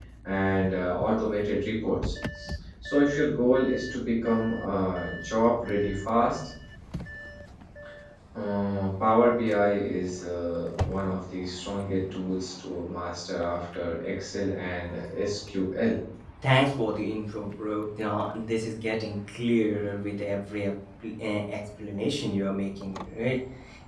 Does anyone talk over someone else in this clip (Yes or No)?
No